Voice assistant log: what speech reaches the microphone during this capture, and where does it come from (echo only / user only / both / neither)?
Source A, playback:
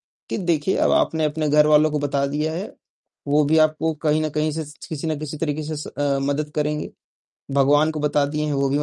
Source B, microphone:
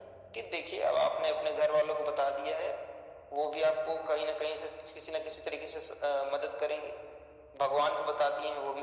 echo only